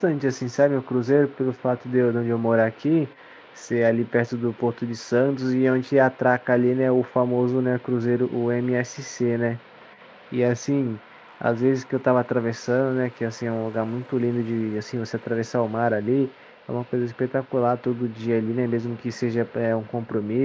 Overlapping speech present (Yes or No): No